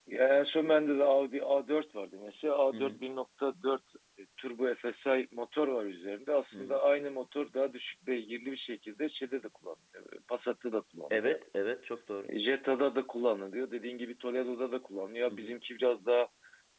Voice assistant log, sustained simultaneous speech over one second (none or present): none